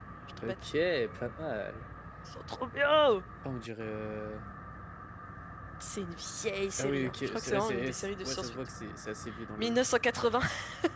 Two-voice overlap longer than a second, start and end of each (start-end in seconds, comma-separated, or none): 6.8-8.6